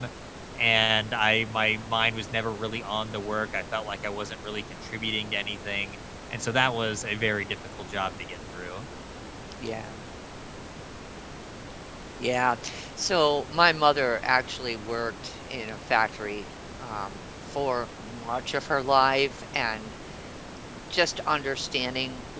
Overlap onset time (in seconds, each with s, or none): none